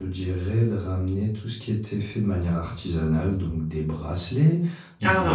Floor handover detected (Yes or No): No